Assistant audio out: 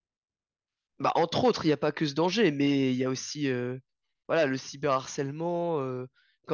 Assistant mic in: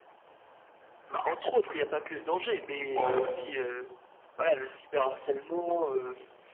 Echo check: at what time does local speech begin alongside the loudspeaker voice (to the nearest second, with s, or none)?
3 s